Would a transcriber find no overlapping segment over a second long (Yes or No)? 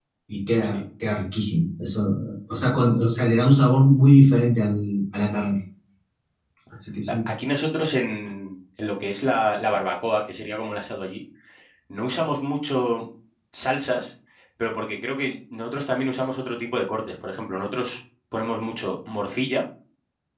Yes